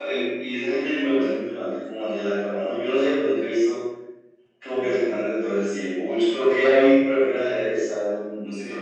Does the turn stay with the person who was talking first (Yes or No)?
Yes